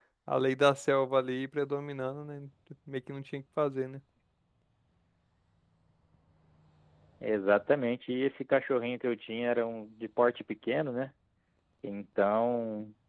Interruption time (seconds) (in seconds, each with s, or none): none